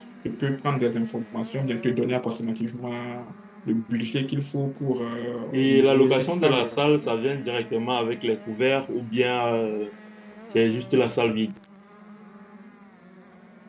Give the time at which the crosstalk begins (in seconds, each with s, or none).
5.5 s